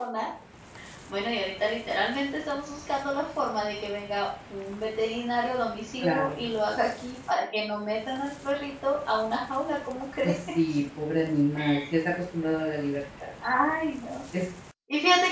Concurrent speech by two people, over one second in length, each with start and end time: none

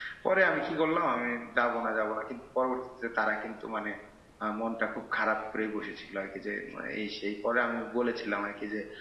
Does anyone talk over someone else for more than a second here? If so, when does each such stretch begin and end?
none

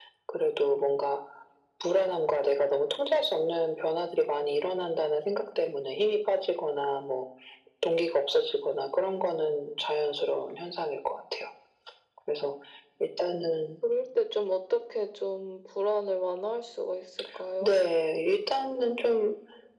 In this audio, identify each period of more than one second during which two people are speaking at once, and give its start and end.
none

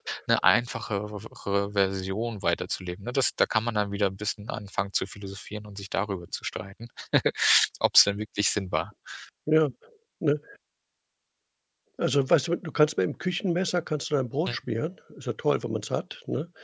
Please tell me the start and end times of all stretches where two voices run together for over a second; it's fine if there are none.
none

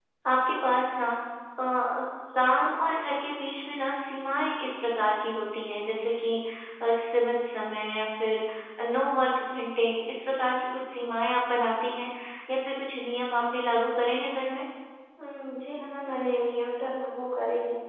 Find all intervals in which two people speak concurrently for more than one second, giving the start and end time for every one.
none

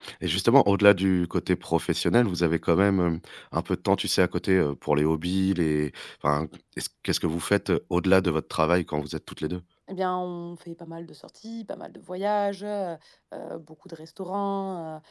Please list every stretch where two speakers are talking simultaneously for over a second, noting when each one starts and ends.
none

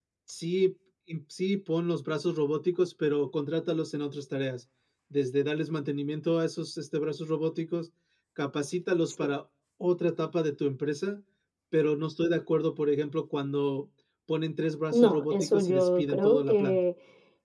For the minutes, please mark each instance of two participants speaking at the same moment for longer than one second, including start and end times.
14.9-16.8

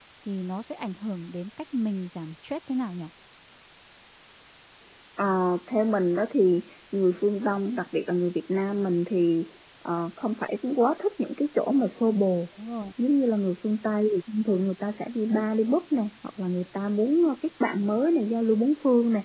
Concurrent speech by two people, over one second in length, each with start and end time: none

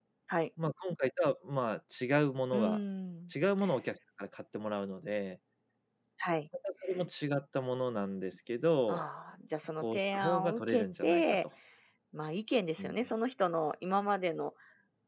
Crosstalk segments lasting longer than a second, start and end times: 9.8-11.2

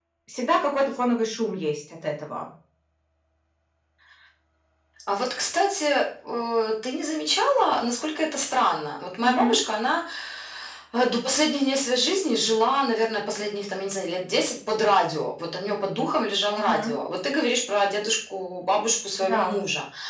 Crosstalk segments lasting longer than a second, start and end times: none

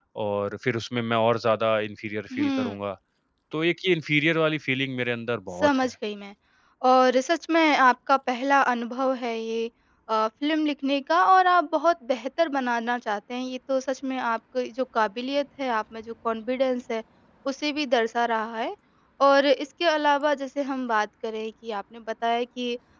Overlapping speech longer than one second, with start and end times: none

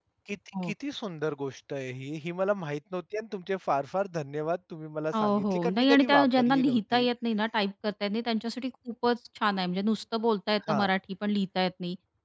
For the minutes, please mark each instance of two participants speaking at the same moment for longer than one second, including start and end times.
5.2-7.1

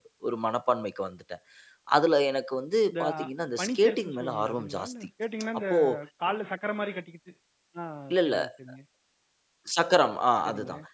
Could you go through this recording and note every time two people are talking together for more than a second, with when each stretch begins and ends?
3.6-4.9

